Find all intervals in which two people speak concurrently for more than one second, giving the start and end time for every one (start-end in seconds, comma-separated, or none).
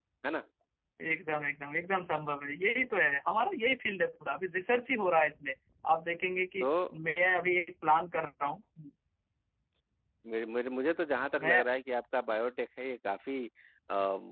none